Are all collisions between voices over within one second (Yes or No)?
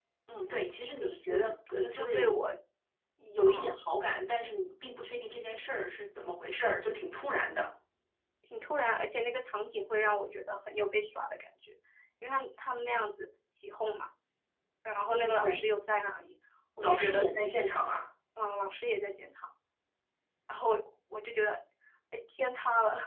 No